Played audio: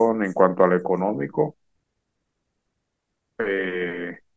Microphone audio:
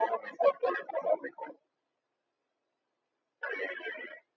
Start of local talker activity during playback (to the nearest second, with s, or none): none